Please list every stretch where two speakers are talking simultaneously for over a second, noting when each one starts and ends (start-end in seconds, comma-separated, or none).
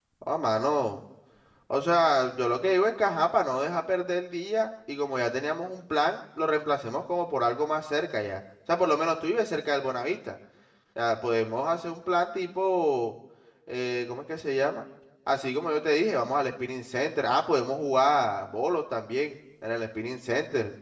none